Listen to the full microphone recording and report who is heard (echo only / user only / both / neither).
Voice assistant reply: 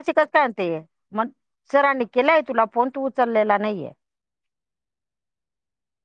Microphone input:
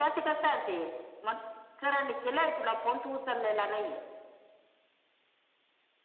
echo only